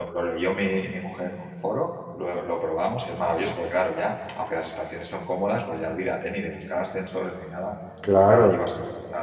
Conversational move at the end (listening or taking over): listening